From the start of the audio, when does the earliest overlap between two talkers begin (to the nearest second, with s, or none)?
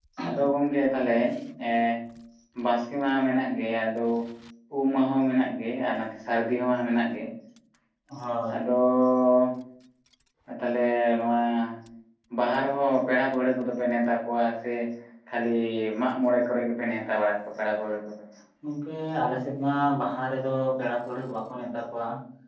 none